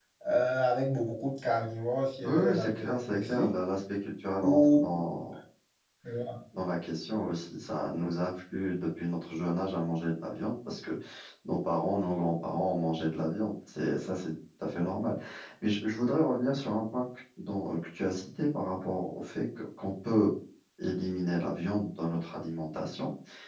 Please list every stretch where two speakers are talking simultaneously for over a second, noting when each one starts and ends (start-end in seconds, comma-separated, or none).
2.2-3.5